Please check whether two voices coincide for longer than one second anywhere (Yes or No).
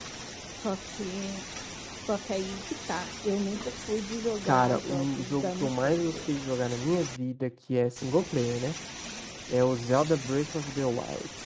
Yes